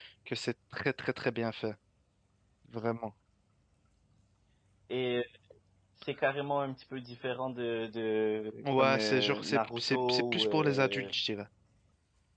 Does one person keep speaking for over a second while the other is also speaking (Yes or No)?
Yes